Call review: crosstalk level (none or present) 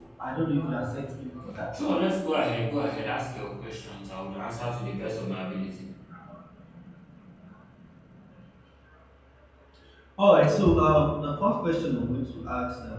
none